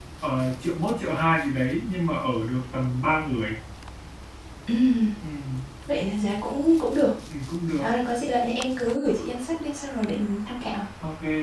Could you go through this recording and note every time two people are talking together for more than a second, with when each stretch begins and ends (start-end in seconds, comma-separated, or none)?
none